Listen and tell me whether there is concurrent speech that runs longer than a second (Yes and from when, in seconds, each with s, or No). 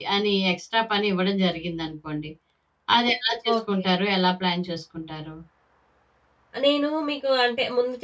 No